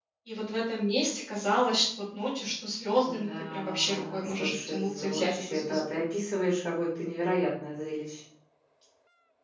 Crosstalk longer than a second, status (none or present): present